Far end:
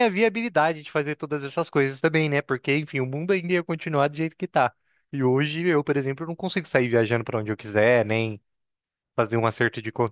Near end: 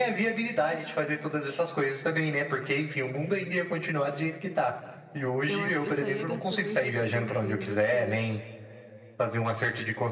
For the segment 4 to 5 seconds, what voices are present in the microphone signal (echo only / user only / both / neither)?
echo only